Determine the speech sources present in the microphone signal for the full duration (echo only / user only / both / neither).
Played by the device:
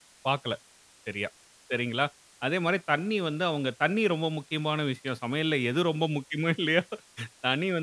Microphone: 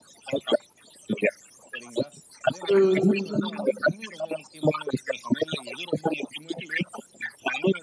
both